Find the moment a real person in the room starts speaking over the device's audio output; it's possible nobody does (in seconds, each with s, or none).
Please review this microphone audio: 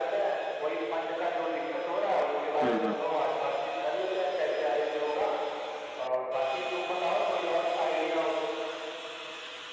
2.6 s